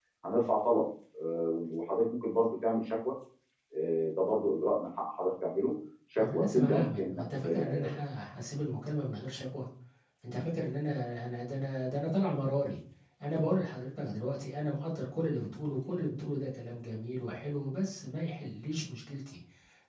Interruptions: present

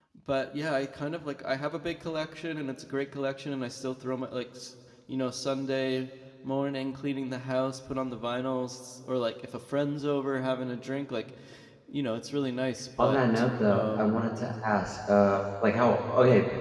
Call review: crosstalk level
present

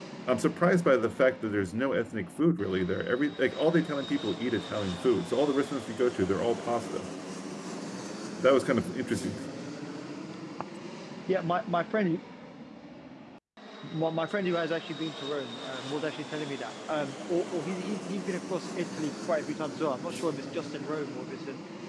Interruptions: none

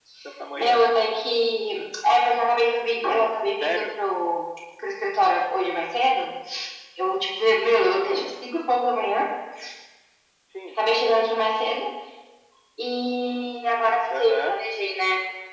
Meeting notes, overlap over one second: none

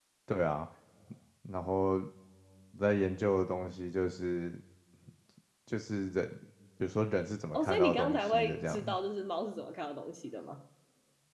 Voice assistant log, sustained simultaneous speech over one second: present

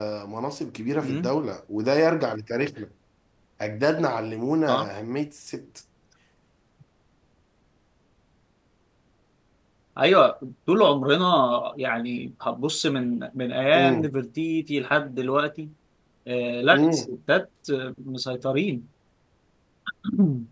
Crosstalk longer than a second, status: none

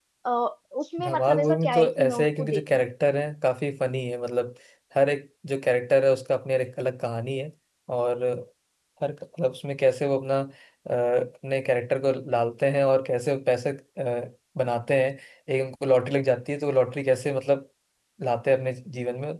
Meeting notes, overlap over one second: present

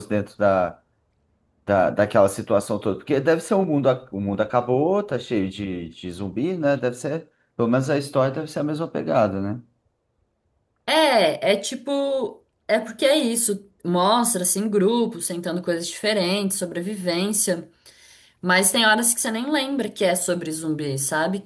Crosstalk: none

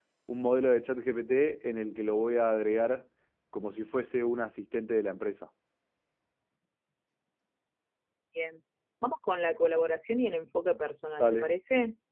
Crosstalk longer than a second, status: none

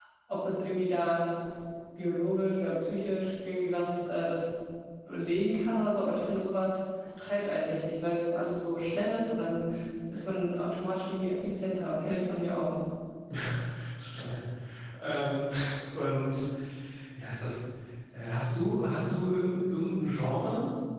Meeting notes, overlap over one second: none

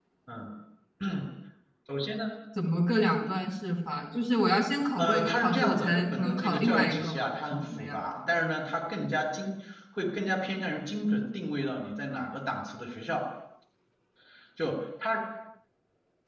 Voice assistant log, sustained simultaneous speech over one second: present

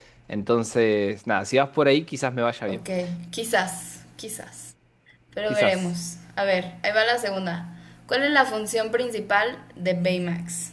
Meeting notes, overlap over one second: none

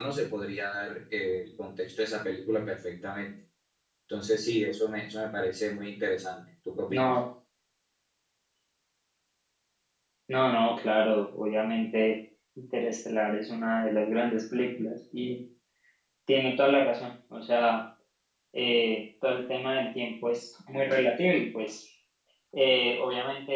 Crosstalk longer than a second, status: none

